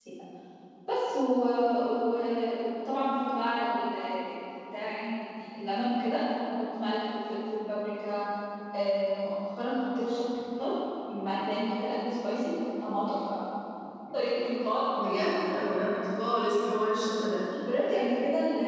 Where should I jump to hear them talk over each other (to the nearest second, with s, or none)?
none